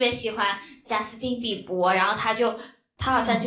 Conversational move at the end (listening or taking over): listening